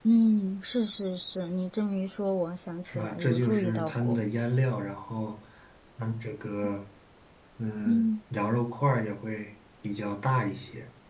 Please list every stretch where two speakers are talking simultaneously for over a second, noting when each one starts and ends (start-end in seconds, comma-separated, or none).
2.9-4.2